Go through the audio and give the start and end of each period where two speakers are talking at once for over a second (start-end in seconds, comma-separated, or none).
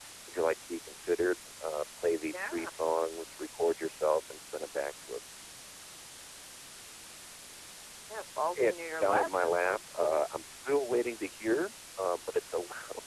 8.6-10.2